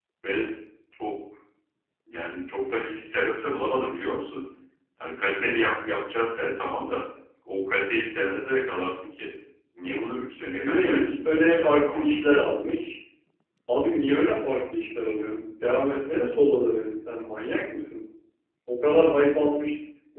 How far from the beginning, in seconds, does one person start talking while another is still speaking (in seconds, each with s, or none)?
10.6 s